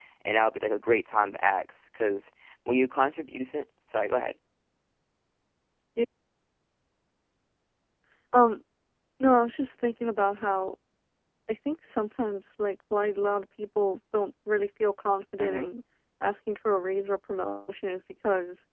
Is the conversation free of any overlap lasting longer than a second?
Yes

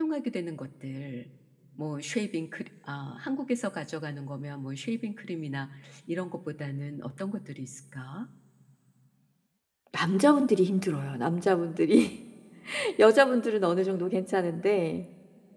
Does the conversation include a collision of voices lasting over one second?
No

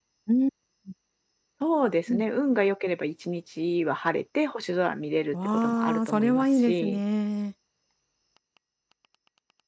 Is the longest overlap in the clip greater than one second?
Yes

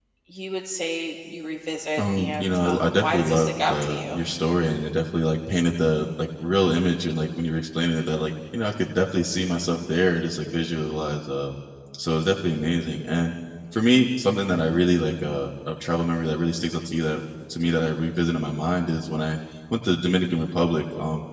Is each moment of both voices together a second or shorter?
No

